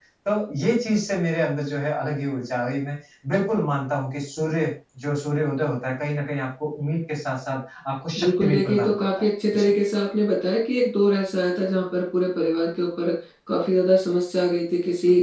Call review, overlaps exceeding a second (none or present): present